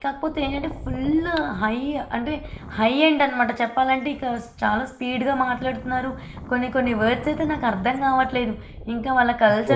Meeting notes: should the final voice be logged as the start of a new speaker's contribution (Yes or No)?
No